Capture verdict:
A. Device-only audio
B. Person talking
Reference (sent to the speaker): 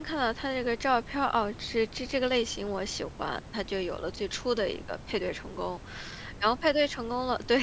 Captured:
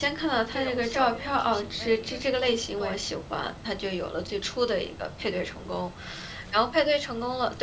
B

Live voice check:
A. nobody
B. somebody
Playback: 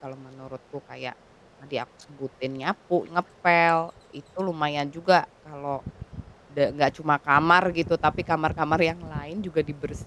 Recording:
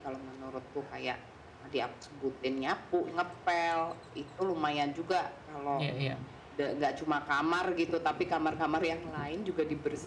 B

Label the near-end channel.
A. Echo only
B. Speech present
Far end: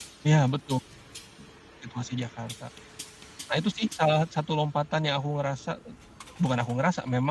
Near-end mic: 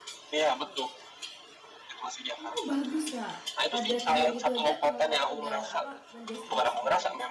B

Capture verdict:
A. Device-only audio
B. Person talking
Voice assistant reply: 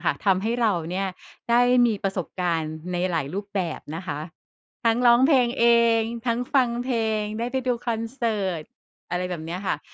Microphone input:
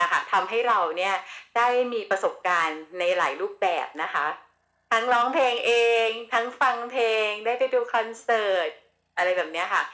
A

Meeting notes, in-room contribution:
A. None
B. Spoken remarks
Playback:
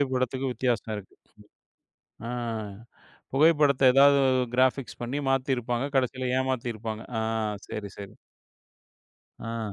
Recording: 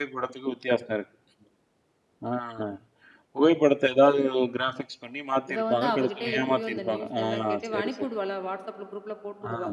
B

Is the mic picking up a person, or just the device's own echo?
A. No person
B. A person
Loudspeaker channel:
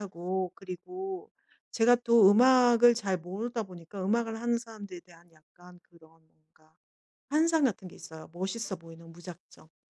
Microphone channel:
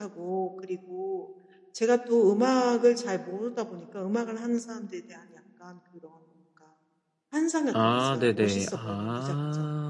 B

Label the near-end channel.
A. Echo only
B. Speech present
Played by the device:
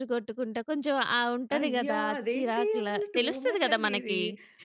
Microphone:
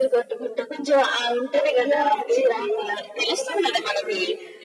A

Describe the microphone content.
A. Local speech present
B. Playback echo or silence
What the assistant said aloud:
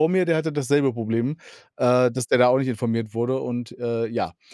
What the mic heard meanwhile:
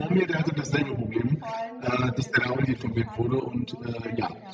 A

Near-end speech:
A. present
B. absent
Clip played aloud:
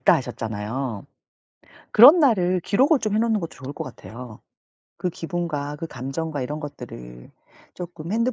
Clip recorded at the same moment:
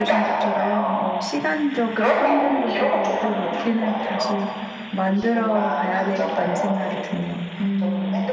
A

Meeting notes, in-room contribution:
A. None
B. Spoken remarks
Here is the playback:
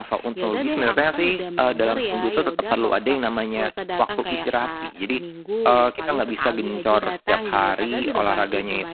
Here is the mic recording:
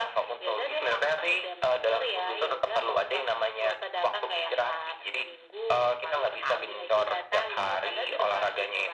A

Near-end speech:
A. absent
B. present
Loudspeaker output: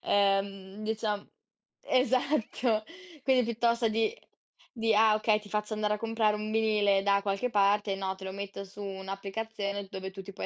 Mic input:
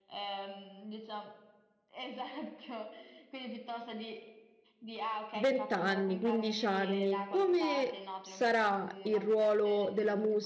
B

